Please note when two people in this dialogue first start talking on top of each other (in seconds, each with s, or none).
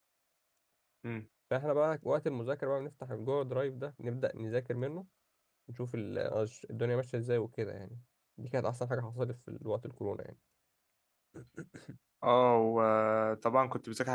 none